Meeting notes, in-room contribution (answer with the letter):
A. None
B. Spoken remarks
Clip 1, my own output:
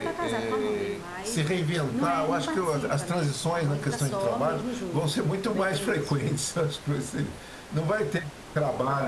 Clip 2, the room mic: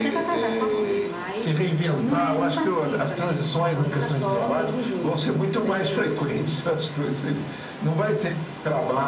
A